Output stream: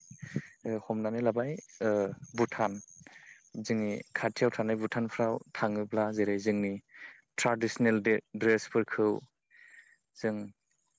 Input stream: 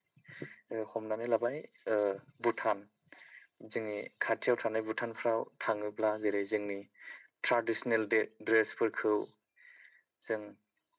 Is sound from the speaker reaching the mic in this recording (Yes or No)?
Yes